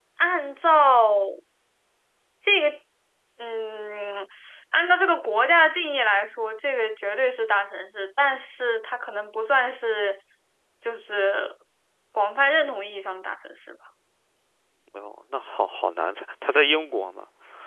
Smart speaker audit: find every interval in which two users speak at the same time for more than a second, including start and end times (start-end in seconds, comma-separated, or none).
none